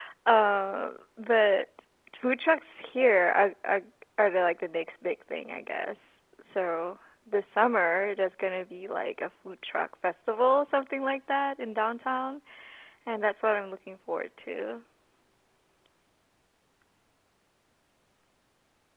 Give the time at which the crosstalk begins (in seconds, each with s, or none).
none